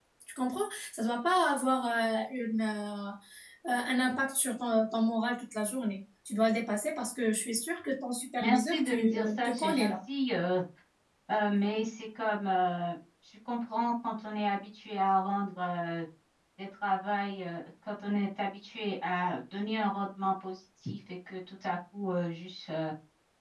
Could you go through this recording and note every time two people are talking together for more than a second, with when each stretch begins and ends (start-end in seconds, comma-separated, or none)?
8.4-9.9